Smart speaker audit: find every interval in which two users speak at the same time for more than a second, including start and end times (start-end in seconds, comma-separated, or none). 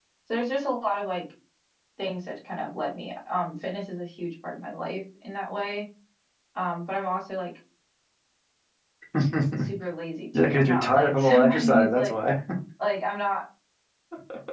10.3-12.1